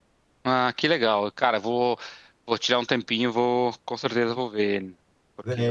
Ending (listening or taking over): taking over